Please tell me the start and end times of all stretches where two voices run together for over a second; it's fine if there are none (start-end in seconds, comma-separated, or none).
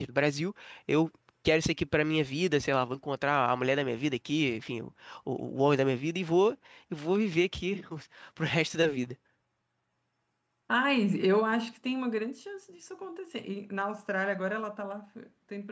none